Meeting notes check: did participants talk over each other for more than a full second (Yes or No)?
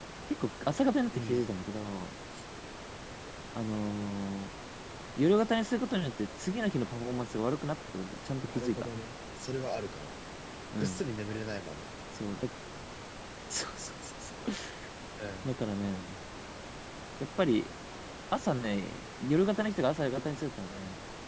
No